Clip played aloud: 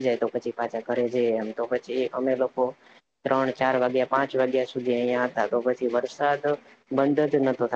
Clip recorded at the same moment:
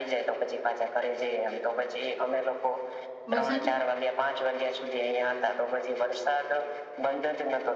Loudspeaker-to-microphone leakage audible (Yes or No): Yes